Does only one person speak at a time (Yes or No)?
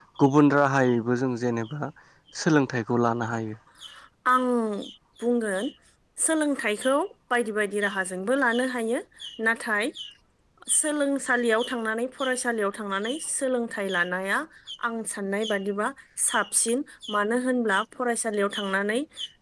Yes